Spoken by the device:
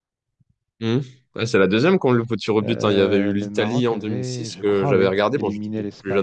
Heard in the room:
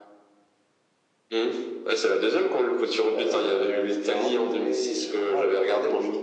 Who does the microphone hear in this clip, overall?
echo only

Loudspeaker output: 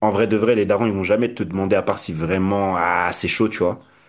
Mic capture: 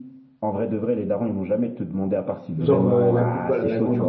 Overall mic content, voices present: both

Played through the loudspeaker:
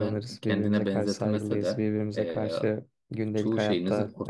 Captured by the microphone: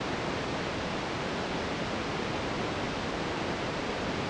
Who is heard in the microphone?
neither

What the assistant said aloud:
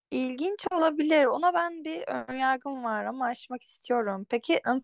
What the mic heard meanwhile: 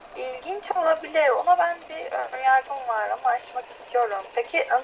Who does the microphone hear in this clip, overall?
echo only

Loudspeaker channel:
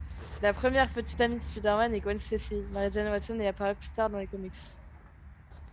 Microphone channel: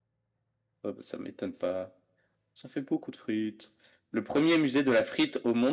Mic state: user only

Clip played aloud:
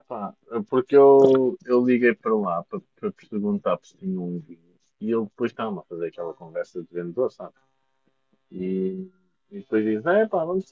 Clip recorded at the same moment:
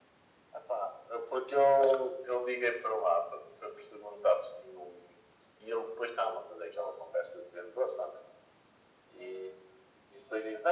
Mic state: echo only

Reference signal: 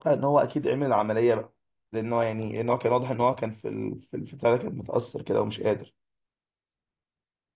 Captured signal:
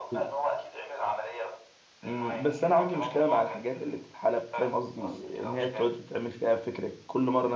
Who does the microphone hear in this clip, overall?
both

